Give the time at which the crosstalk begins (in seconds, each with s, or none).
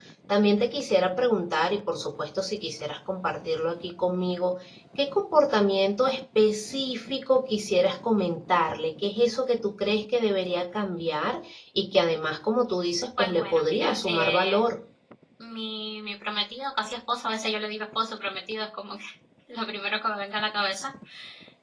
13.2 s